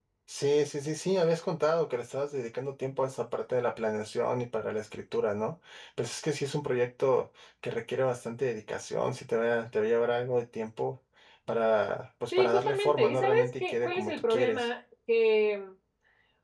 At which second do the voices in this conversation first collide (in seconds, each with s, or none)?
12.3 s